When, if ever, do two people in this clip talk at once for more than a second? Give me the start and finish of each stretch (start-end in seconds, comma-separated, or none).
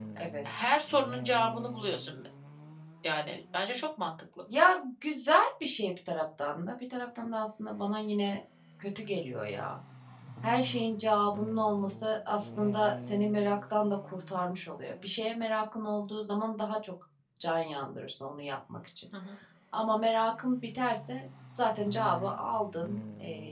none